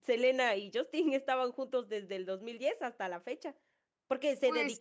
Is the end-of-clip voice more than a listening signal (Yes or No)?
No